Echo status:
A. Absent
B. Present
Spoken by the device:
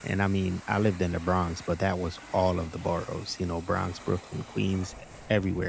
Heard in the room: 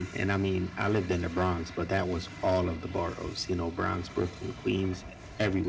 B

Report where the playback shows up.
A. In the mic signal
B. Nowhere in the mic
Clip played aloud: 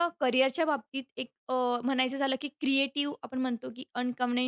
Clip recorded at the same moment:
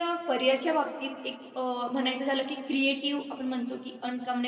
A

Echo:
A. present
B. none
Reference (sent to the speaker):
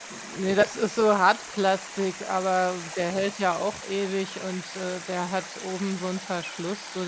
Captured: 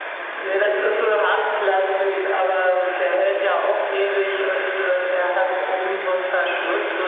A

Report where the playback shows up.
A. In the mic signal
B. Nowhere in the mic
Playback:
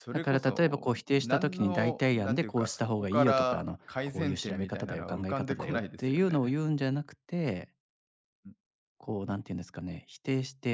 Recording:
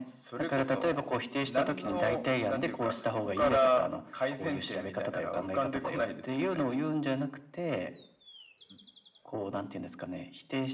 A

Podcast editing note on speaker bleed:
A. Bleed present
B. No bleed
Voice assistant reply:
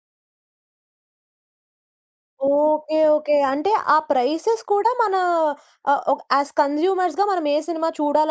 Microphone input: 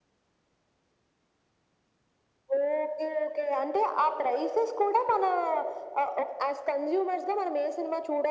A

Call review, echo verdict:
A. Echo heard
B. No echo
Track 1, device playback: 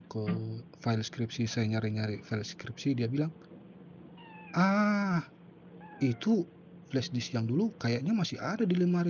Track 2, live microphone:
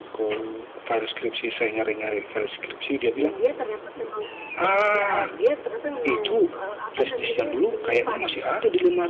A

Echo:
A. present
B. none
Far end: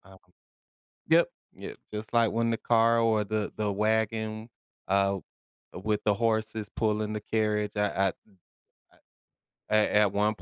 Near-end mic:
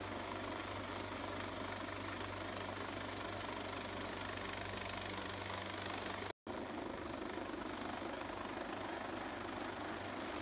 B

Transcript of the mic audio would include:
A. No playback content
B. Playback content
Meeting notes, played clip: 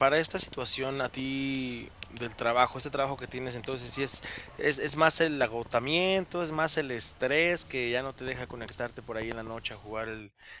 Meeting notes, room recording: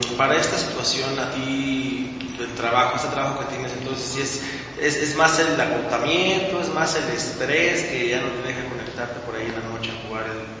B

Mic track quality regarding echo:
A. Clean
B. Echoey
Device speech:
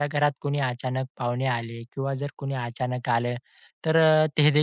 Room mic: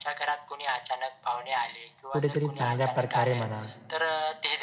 B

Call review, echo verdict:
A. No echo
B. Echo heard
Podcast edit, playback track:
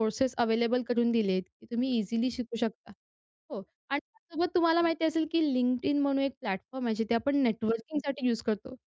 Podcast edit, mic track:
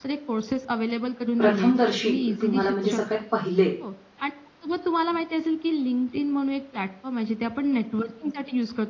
B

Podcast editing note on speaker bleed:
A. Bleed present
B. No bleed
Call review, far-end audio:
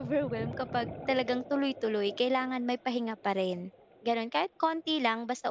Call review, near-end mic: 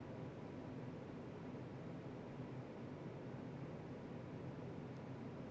B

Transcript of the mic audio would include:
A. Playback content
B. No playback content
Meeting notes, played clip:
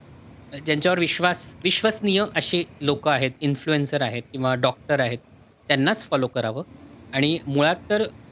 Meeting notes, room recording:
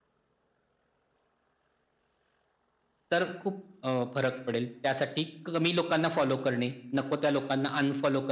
B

